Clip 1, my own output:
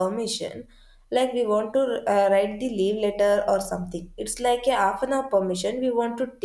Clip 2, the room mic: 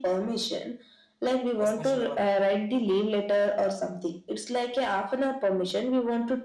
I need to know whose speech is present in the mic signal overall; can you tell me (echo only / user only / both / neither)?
both